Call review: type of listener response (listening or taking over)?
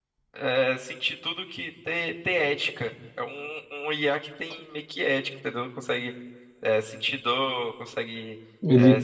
listening